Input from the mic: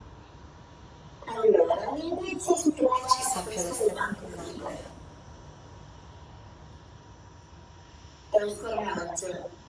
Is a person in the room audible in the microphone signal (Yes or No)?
Yes